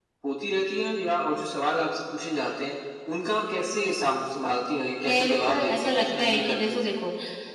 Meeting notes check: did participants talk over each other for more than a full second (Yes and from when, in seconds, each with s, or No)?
Yes, from 5.0 s